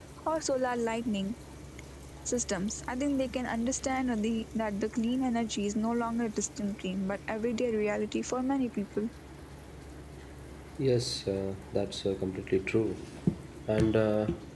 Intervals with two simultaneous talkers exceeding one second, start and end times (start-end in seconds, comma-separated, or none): none